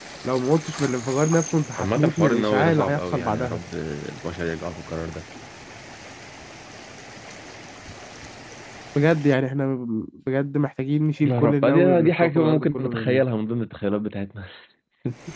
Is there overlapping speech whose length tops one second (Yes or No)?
Yes